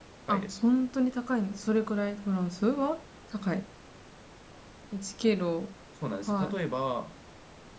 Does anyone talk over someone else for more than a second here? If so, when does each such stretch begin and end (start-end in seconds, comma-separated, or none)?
none